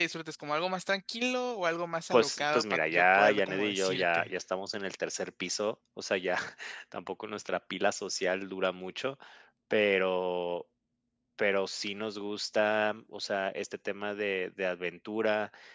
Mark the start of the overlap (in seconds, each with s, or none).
2.1 s